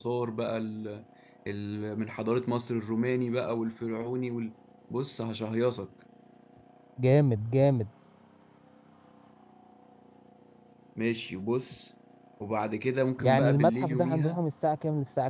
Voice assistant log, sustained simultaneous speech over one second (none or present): present